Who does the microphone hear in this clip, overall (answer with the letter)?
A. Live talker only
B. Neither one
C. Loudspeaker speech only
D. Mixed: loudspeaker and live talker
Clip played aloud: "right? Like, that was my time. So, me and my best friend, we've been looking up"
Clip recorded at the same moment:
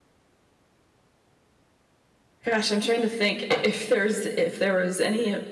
A